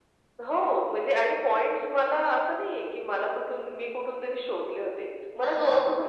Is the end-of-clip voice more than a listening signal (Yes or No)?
No